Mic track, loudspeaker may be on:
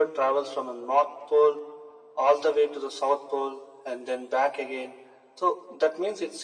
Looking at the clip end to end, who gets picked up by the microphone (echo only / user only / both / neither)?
echo only